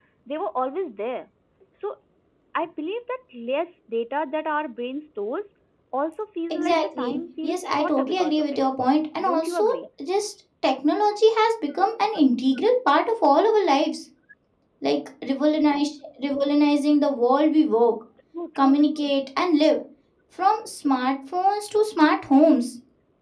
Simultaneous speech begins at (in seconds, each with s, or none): 6.5 s